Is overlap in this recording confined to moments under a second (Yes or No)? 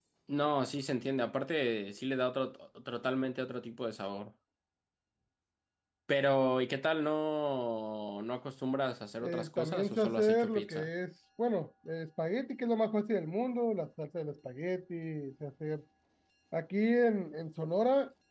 No